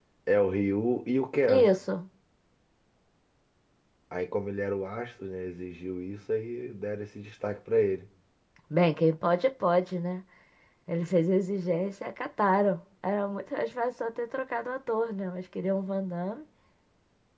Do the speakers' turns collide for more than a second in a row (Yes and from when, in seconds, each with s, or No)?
No